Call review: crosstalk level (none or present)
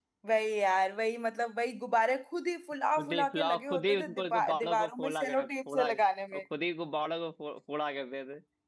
present